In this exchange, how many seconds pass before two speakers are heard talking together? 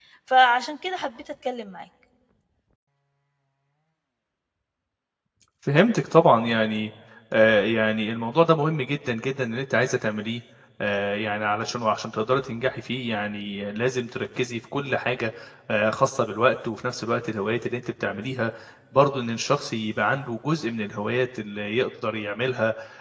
none

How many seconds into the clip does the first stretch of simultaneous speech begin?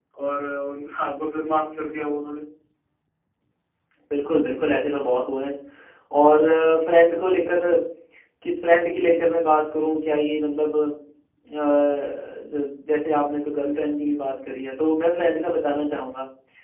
none

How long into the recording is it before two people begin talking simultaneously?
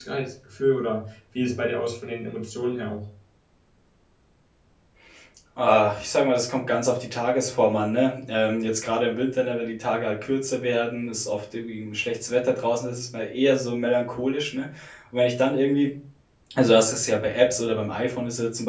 none

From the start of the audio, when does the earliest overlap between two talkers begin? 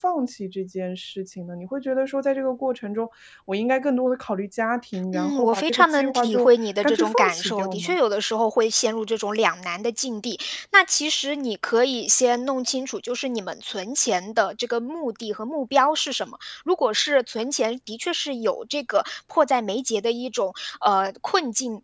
5.1 s

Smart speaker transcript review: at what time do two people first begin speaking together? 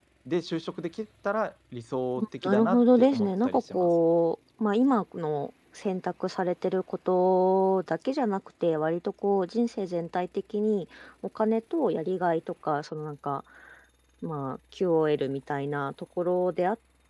2.2 s

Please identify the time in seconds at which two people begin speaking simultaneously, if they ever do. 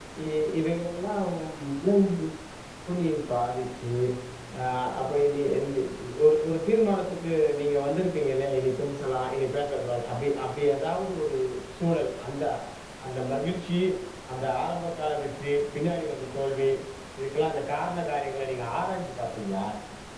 none

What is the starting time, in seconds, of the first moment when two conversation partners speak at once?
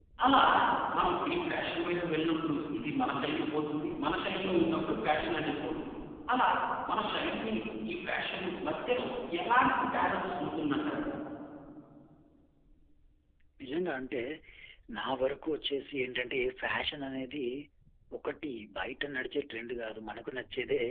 none

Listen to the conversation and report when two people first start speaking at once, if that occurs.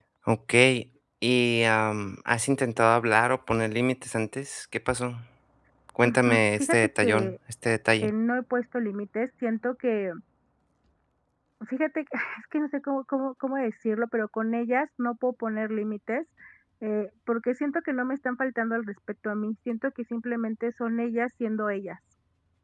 6.0 s

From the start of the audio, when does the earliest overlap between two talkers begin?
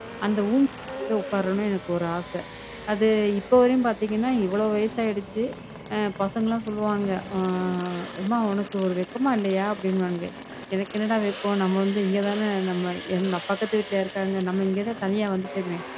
none

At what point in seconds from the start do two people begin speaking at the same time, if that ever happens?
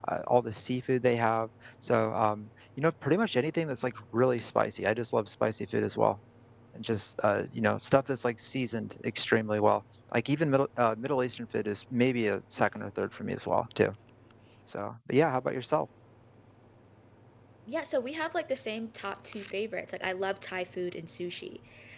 none

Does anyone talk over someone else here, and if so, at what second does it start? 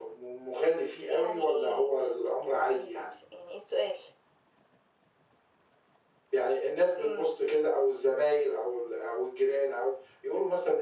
1.1 s

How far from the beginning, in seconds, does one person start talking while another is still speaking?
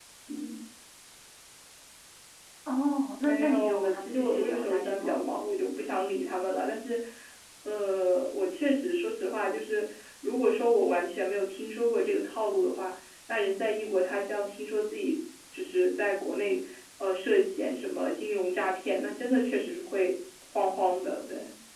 3.2 s

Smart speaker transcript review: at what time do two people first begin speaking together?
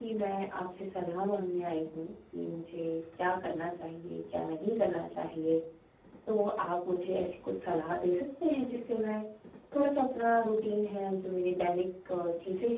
none

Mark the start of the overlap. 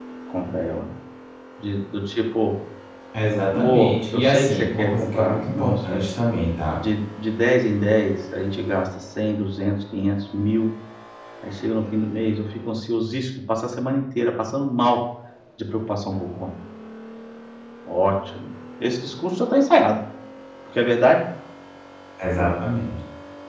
3.5 s

